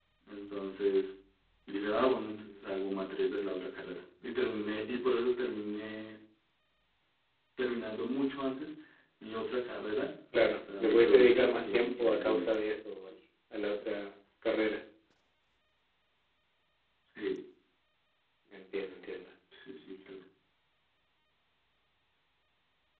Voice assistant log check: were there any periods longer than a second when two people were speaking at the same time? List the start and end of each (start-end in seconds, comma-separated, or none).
10.8-12.6